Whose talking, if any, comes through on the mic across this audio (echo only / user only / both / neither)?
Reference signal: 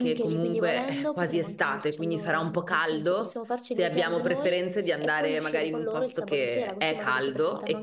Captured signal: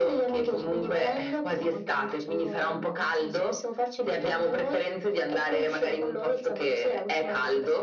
echo only